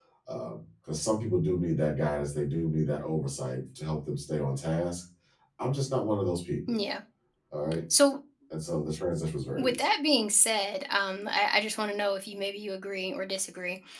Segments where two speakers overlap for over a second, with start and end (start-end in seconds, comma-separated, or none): none